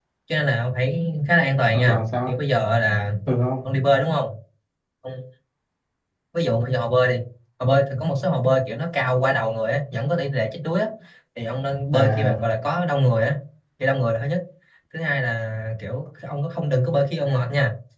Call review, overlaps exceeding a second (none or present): none